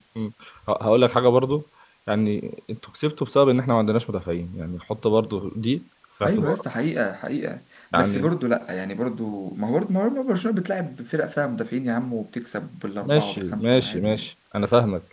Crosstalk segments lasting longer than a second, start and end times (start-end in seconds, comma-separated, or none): 13.0-14.3